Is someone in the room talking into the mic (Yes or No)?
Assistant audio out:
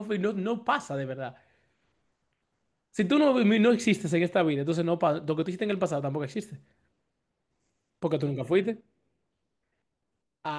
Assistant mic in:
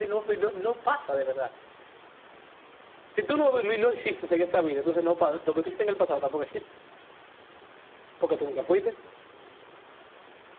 No